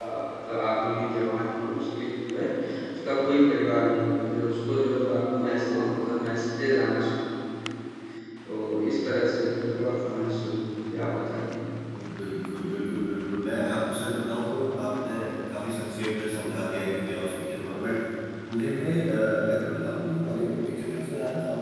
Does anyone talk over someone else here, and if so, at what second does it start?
none

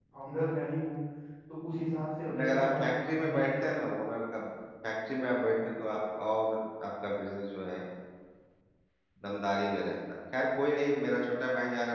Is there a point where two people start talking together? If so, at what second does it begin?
2.3 s

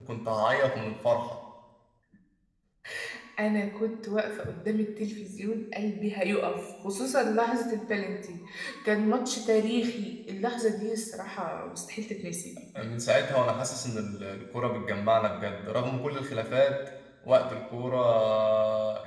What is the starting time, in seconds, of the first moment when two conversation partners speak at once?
none

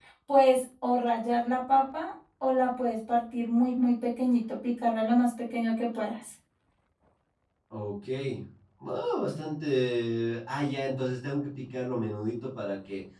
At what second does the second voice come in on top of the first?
none

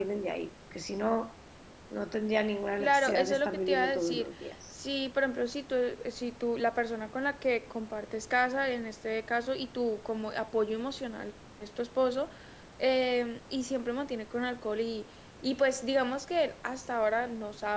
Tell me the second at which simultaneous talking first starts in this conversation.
2.7 s

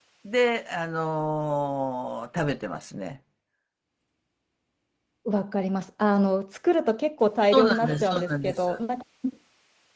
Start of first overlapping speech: 7.5 s

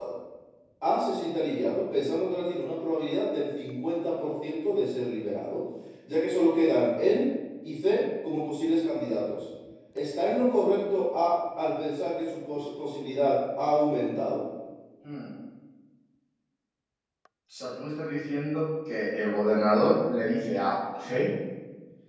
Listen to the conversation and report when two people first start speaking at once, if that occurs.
none

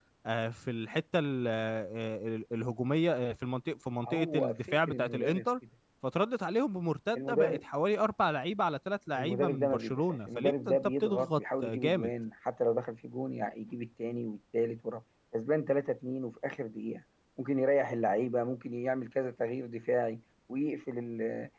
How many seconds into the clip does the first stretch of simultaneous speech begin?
4.1 s

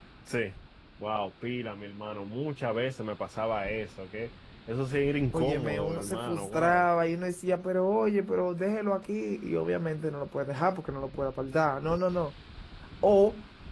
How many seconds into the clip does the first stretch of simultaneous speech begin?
5.3 s

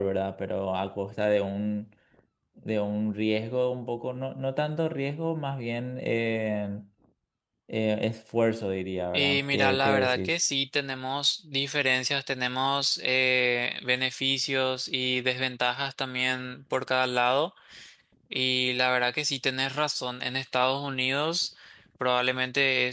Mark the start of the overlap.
9.1 s

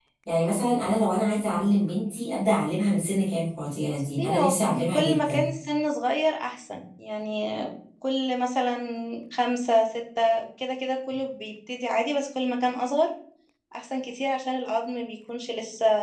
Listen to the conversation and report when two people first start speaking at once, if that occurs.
3.9 s

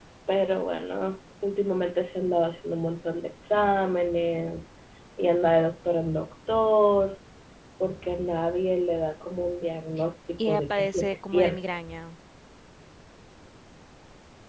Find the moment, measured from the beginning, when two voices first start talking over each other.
10.4 s

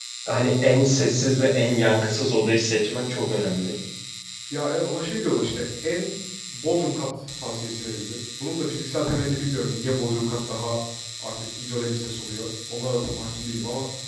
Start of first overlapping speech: none

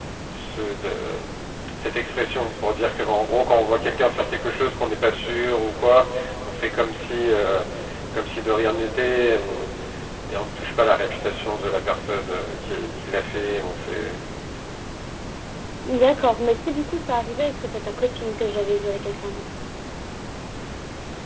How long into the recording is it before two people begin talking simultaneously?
none

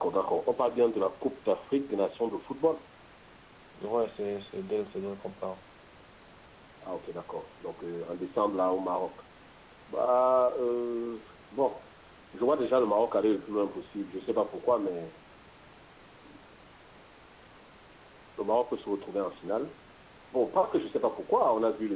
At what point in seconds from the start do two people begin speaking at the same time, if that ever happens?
none

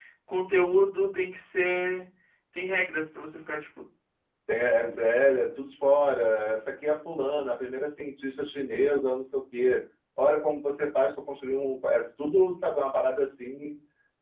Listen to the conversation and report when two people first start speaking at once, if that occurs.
none

